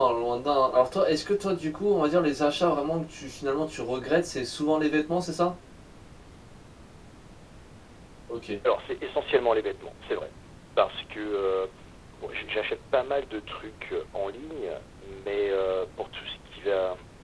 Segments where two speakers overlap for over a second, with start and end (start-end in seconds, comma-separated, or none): none